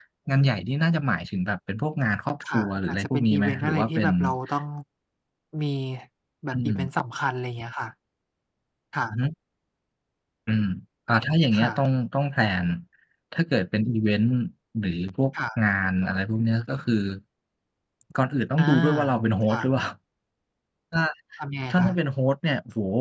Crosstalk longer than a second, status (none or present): present